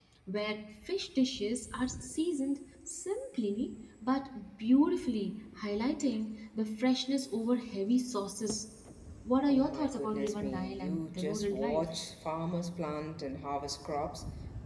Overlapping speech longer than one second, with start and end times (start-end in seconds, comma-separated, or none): 9.5-11.9